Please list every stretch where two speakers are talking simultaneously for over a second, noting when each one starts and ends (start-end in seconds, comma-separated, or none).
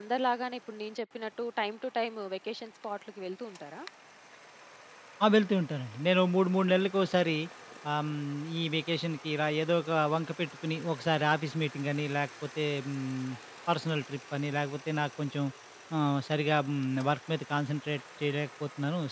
none